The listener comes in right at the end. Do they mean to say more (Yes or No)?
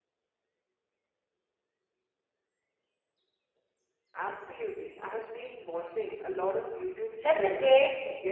Yes